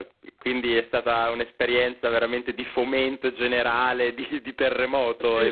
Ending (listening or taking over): taking over